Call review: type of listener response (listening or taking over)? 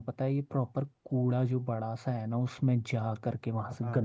listening